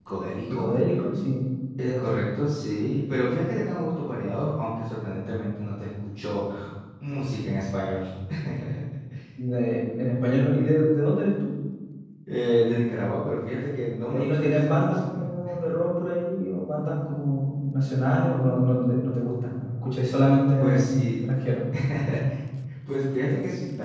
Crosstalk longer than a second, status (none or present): present